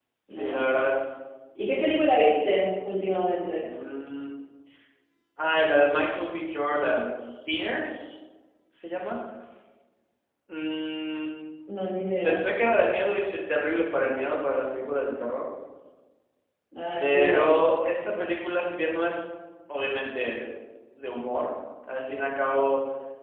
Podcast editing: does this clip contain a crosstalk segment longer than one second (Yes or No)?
No